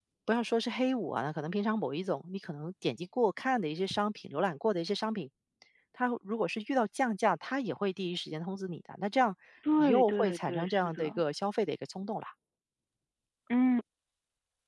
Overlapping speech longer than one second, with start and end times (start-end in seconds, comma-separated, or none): 9.8-11.0